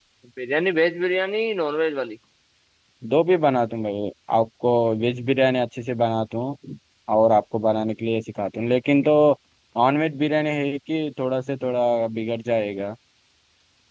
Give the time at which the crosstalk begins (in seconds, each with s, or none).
none